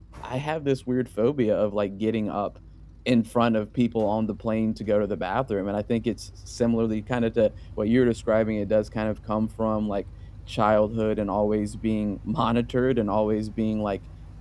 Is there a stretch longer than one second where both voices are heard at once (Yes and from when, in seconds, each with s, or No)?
No